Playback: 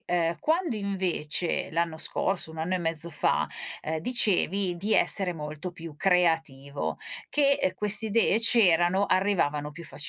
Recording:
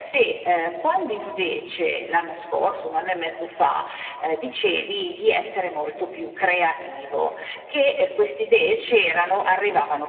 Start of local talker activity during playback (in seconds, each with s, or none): none